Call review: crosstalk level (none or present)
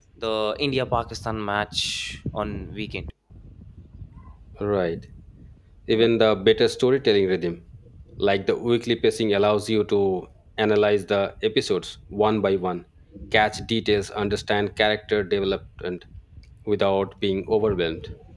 none